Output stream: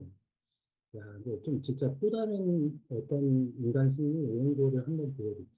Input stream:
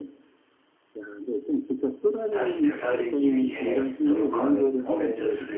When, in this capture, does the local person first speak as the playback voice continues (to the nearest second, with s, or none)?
2 s